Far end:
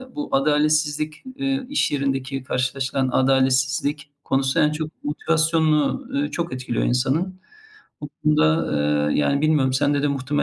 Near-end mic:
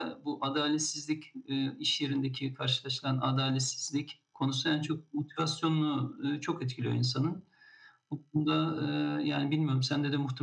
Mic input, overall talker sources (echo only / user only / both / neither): echo only